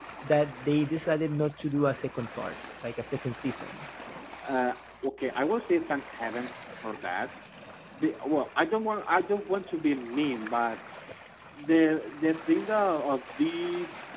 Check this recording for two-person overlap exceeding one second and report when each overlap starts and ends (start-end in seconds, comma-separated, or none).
none